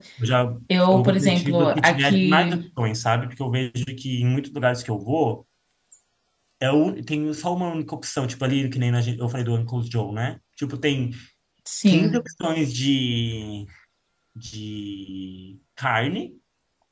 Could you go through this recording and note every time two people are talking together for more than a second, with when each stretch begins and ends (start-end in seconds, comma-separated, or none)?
0.9-2.5